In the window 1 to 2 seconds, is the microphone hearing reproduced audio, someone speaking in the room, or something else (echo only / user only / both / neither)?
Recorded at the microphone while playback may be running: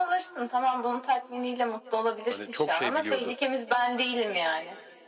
echo only